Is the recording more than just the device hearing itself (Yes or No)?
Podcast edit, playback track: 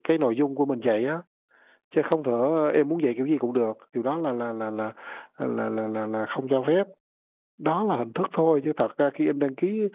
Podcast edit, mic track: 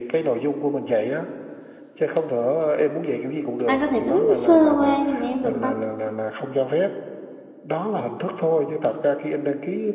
Yes